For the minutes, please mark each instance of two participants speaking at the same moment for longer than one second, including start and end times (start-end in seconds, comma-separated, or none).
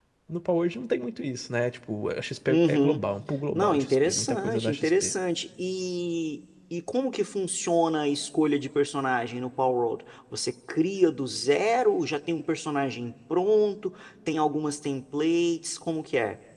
3.5-5.1